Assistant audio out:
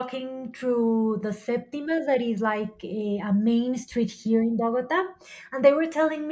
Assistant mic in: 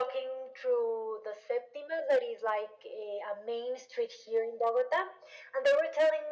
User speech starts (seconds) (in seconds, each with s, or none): none